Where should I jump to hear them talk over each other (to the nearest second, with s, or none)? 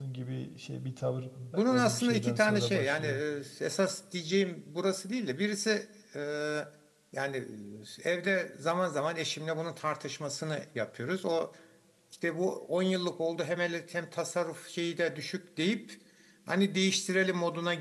2 s